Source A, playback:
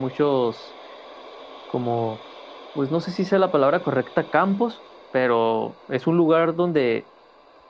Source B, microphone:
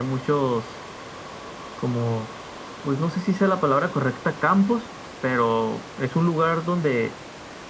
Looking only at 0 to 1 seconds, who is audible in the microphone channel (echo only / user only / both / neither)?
echo only